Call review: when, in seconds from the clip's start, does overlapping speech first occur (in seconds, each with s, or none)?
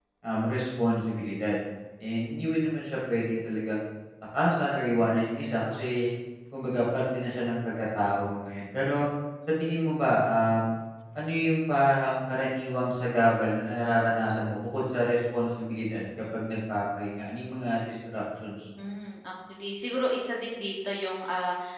none